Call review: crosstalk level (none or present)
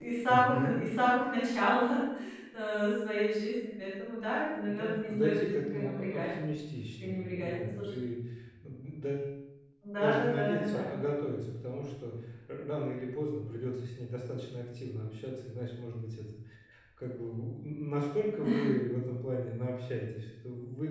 present